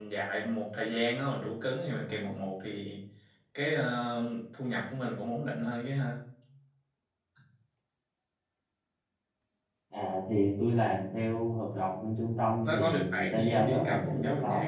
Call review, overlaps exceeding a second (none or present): present